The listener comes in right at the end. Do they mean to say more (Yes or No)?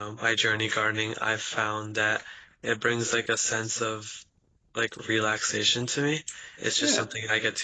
No